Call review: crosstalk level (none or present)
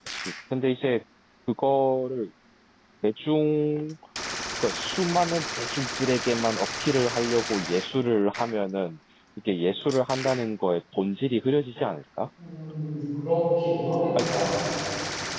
none